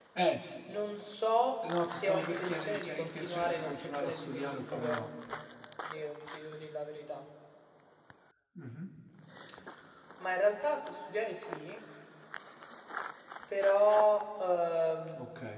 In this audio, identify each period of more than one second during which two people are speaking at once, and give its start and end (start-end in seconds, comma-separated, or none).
1.8-5.1